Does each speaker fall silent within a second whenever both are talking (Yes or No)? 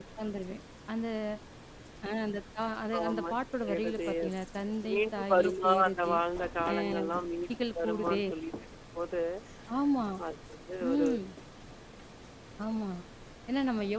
No